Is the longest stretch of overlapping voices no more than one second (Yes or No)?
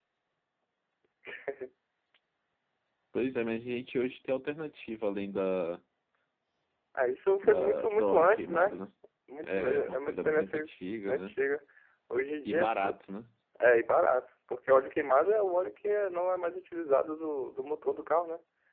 No